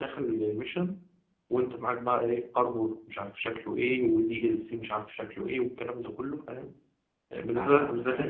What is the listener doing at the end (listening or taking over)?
taking over